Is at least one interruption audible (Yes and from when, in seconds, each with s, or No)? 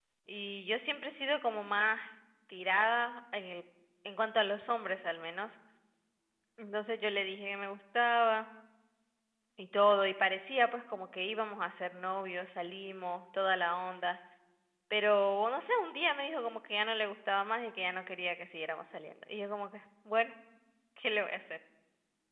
No